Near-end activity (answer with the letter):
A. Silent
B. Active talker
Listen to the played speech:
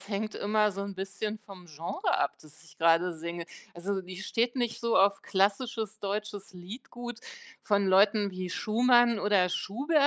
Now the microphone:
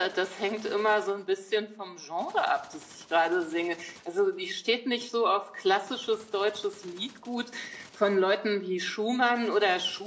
A